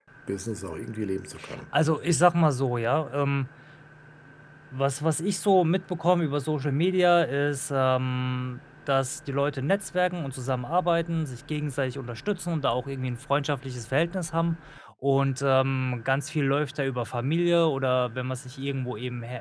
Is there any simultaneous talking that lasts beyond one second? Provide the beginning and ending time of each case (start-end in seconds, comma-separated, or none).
none